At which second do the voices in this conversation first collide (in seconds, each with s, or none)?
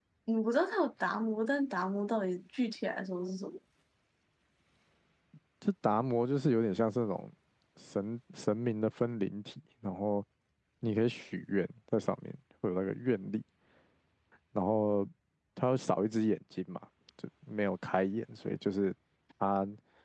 none